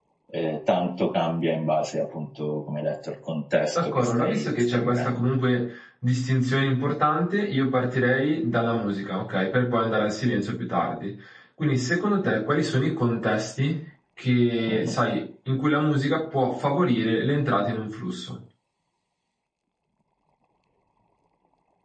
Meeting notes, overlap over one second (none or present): present